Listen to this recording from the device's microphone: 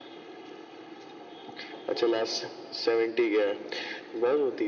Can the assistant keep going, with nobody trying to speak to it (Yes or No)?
Yes